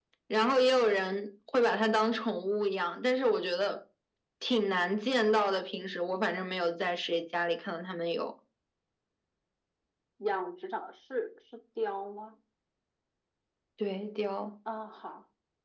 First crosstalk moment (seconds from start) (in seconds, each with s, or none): none